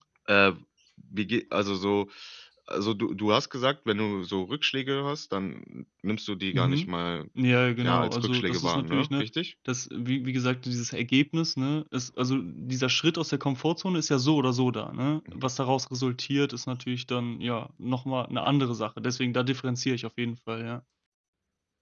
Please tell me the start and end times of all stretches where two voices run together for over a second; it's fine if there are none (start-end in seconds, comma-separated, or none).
7.8-9.2